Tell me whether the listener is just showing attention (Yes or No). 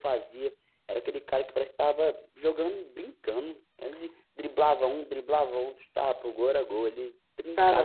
No